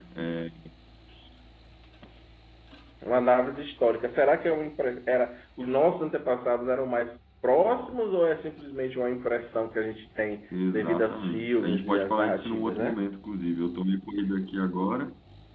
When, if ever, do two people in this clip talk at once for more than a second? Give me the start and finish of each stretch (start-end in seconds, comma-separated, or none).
10.7-13.0